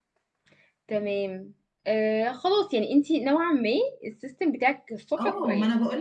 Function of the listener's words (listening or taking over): taking over